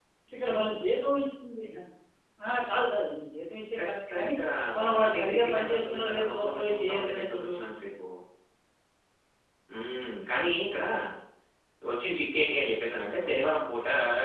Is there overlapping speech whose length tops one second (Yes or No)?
Yes